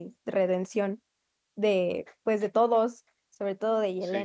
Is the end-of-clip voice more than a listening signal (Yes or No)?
Yes